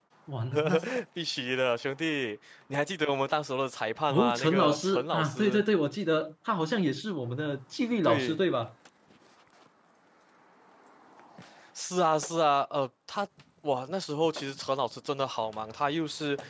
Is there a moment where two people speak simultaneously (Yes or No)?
Yes